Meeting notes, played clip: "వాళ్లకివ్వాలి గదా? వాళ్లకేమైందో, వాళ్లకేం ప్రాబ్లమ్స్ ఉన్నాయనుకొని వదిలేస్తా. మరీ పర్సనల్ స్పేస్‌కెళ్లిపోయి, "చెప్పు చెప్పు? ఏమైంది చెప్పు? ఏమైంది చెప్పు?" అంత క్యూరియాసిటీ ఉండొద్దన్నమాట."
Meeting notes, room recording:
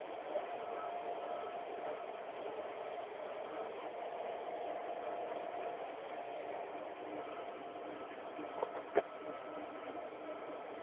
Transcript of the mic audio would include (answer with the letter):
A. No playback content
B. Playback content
A